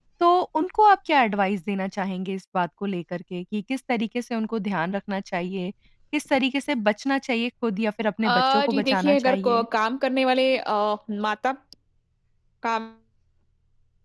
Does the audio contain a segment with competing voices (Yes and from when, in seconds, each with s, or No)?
Yes, from 8.2 s